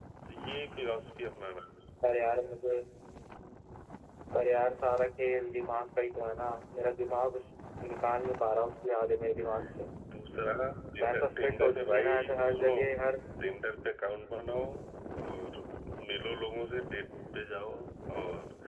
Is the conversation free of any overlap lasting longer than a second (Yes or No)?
No